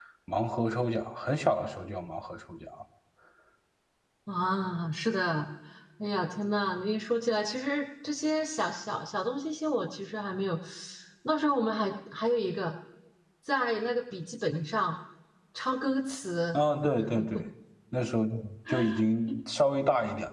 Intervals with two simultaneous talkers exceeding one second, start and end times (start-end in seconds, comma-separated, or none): none